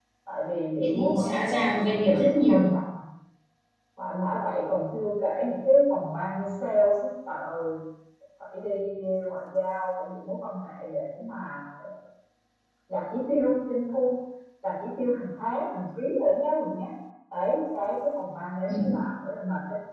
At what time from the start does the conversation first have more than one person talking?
1 s

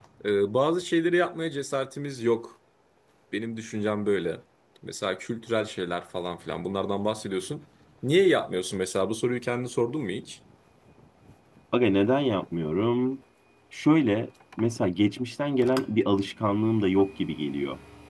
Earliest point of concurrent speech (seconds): none

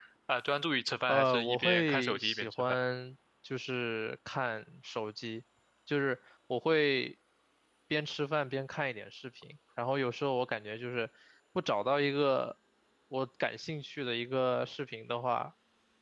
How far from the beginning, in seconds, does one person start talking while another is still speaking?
1 s

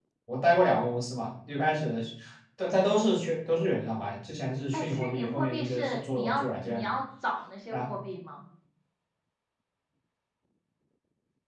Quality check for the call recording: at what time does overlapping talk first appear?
5 s

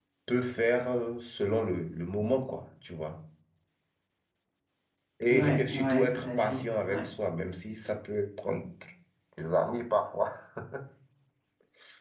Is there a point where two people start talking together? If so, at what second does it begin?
5 s

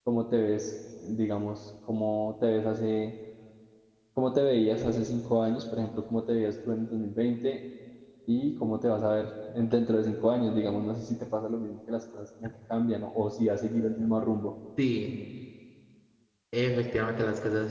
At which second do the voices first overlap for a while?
none

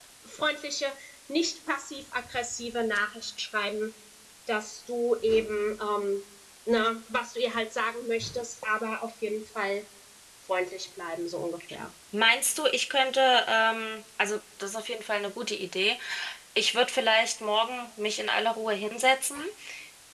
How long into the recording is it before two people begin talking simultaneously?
none

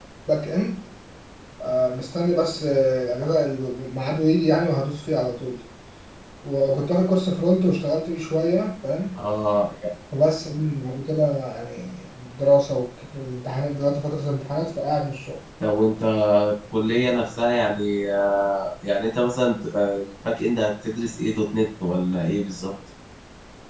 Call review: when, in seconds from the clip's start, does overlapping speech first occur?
none

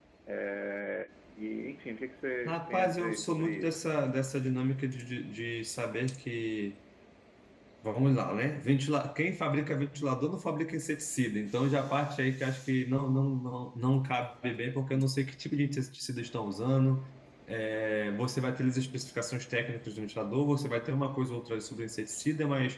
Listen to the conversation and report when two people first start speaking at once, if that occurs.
2 s

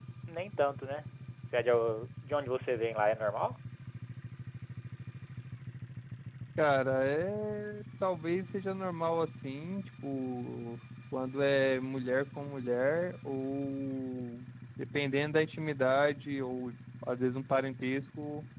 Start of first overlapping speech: none

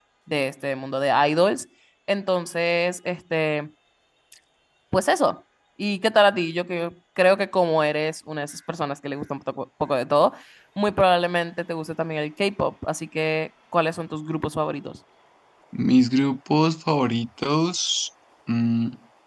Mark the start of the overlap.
none

